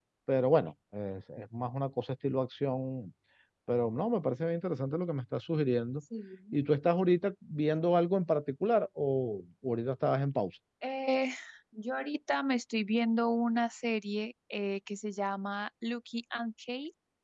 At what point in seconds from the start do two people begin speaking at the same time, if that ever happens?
none

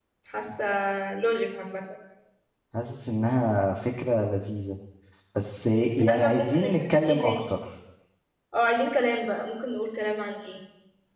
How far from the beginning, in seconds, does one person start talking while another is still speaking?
6 s

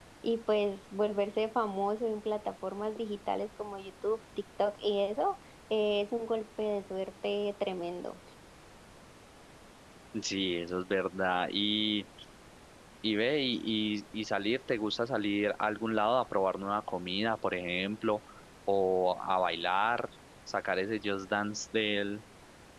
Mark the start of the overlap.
none

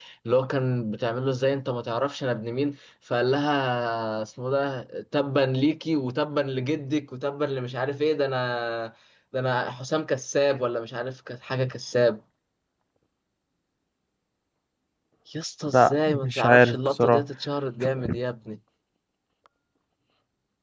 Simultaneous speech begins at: 16 s

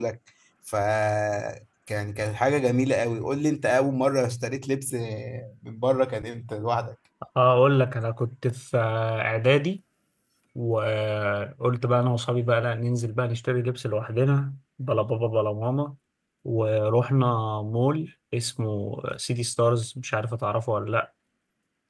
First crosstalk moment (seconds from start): none

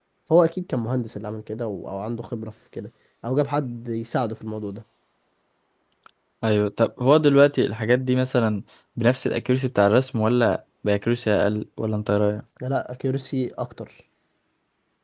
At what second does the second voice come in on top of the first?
none

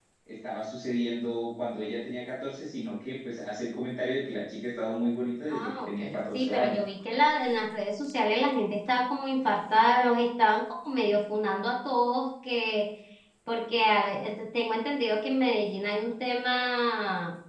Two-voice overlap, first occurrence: 5 s

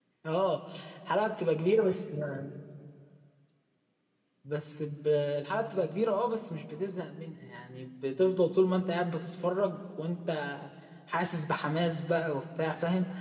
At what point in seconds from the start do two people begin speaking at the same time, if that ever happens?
none

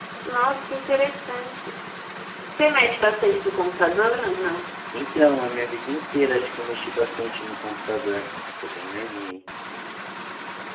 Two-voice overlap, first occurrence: none

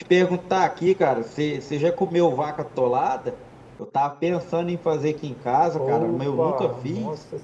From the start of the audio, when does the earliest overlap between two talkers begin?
6 s

